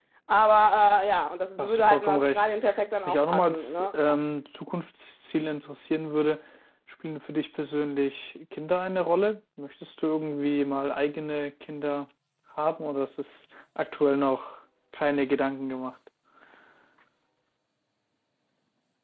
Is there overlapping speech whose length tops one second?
Yes, from 1.6 s

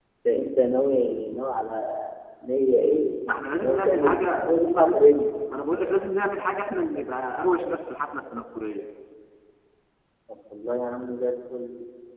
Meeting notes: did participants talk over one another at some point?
Yes, from 3.6 s

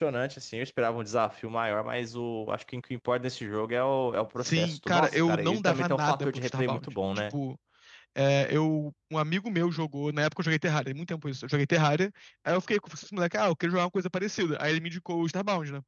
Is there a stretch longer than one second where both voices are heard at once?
Yes, from 4.4 s

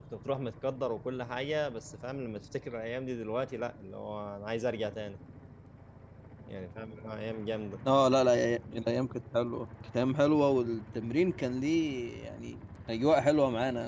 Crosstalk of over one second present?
No

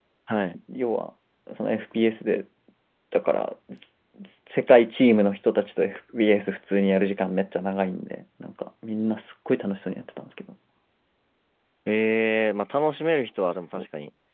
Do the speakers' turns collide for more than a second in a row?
No

